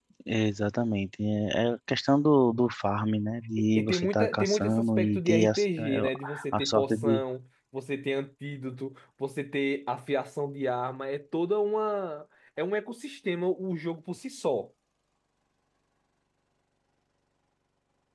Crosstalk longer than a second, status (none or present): present